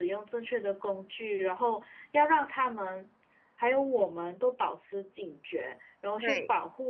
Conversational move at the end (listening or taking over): listening